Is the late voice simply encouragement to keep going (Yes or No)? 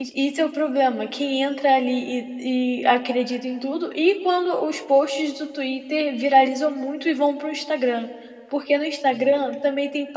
Yes